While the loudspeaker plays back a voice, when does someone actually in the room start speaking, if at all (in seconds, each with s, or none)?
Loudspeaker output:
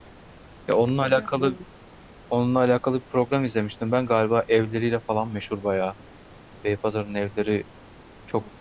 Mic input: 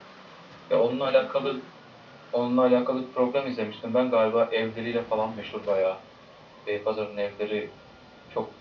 none